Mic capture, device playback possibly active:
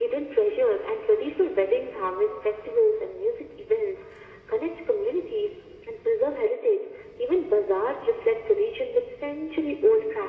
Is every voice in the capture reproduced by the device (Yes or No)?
Yes